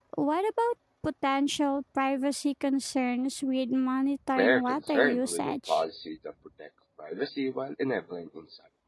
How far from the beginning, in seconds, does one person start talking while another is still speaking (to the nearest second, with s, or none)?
4 s